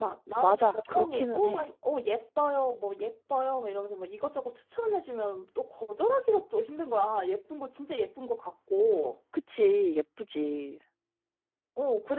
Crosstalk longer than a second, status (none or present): present